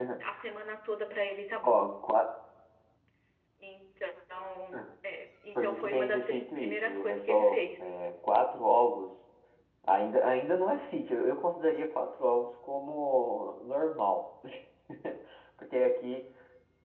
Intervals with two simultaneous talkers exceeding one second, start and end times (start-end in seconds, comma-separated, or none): 5.5-7.6